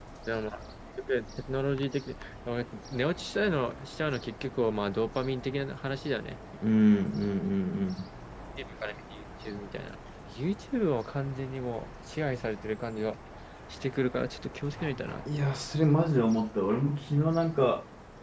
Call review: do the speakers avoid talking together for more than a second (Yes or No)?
Yes